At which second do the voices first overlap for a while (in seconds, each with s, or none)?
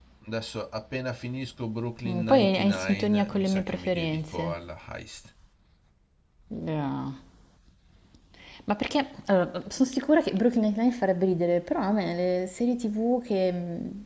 2.0 s